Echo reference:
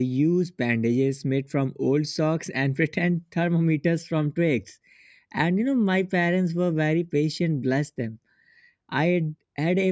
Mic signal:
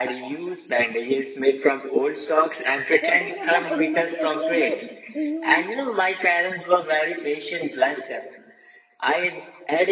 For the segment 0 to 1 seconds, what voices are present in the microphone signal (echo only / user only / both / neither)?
echo only